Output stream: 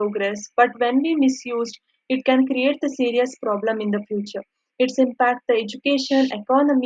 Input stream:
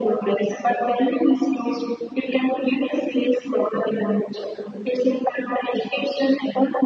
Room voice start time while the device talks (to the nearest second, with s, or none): none